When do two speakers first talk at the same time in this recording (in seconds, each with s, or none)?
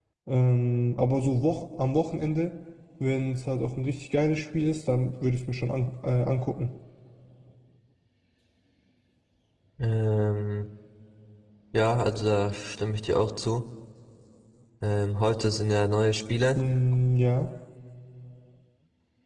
none